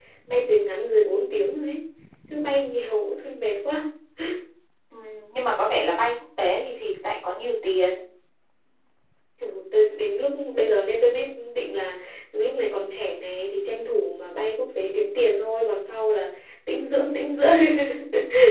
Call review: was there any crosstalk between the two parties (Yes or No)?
No